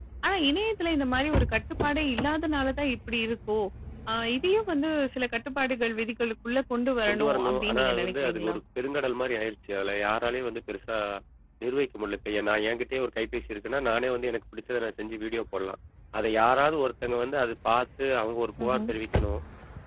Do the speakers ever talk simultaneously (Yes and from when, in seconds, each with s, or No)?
Yes, from 7.1 s